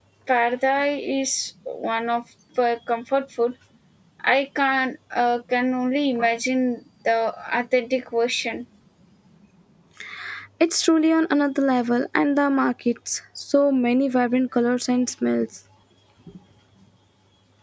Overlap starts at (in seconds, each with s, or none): none